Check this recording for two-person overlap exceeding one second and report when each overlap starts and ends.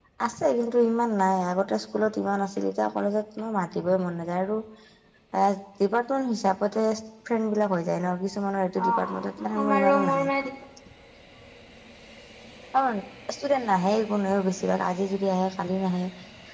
8.8-10.2

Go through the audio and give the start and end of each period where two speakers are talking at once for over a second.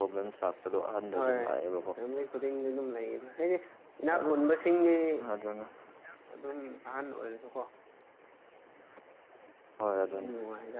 none

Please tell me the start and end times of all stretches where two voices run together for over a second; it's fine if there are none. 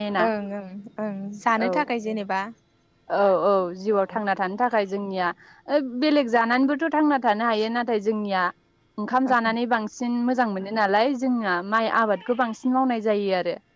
none

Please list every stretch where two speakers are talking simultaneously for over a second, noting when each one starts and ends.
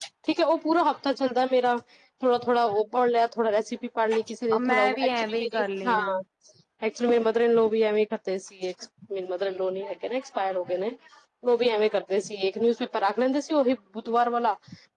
4.6-6.0

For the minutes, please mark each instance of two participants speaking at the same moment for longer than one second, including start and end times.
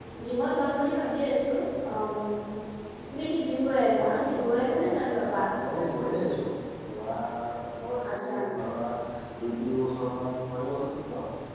4.0-5.3

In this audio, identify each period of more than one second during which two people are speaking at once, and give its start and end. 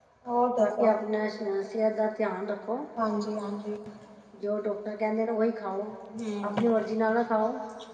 none

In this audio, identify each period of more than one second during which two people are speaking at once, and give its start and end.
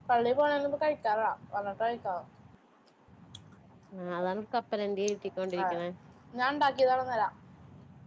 none

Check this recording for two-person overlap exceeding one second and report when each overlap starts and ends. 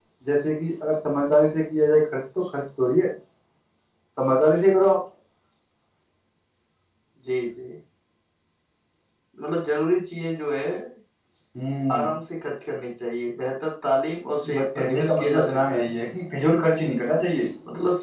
14.5-15.9

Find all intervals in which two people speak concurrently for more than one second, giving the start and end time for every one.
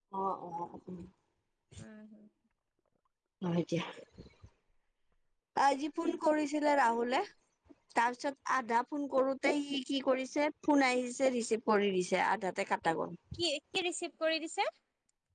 none

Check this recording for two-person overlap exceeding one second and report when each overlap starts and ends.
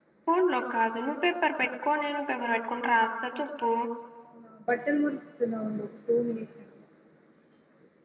none

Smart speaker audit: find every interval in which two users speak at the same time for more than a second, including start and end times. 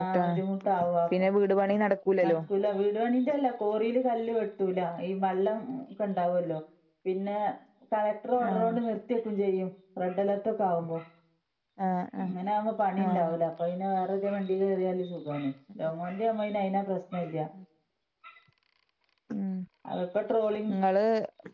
none

